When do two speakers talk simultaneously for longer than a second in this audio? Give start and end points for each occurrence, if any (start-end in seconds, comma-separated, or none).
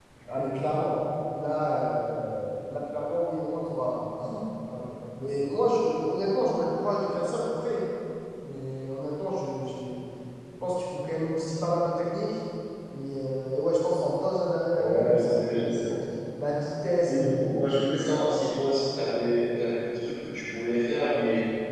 14.8-16.0